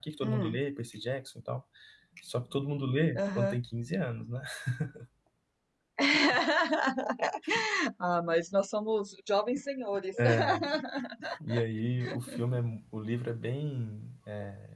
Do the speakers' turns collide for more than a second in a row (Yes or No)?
No